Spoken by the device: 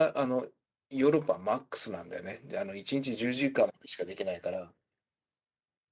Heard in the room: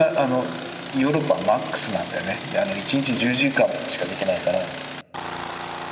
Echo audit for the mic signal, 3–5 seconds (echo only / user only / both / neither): echo only